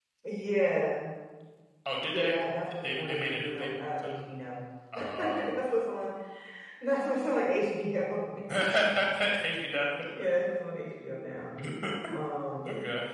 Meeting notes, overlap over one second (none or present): present